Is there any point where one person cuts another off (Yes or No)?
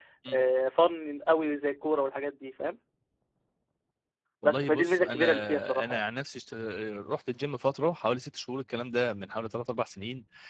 Yes